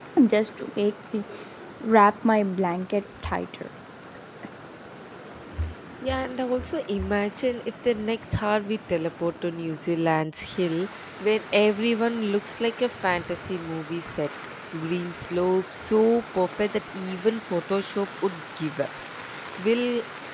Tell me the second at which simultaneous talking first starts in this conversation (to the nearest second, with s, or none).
none